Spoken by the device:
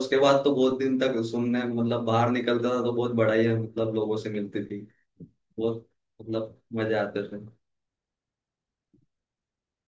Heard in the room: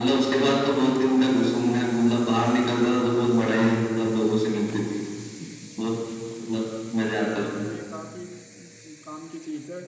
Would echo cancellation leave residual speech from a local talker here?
Yes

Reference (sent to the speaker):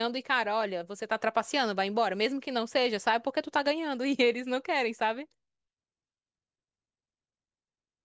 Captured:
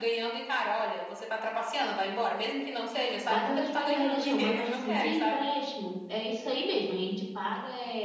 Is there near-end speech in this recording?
Yes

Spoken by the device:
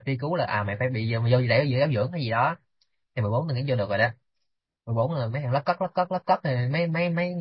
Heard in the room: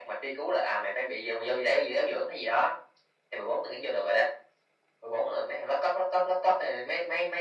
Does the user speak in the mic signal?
No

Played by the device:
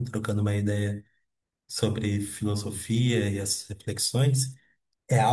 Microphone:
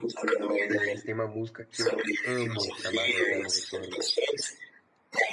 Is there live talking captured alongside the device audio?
Yes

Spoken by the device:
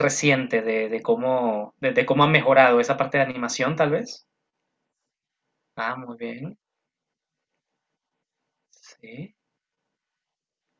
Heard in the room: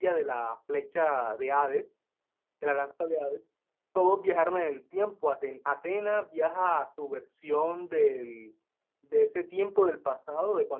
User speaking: Yes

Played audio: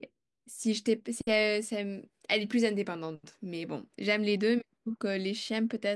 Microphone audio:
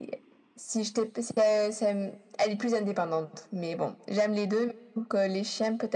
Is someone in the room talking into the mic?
No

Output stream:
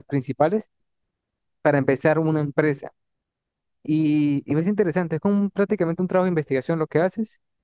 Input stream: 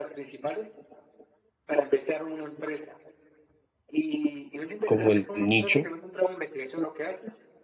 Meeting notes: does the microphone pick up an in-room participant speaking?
Yes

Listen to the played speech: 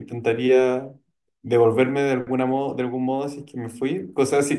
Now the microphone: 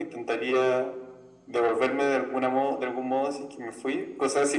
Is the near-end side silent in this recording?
Yes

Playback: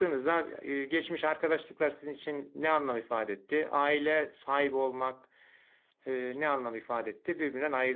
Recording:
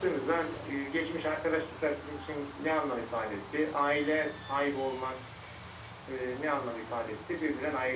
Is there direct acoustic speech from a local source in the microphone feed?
No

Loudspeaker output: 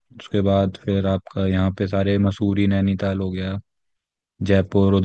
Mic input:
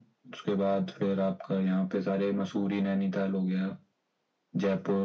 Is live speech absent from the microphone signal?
Yes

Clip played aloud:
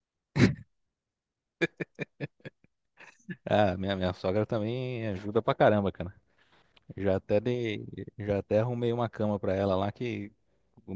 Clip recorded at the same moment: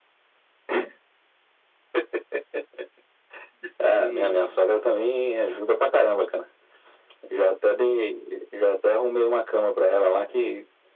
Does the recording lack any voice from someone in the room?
No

